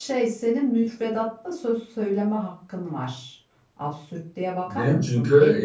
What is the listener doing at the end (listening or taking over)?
taking over